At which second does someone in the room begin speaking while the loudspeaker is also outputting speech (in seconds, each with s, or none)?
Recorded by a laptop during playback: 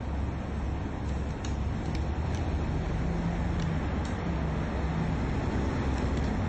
none